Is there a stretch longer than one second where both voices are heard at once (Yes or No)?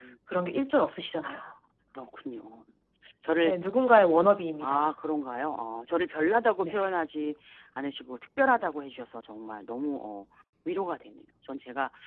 No